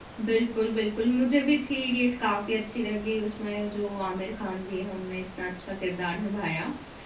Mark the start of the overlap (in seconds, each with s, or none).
none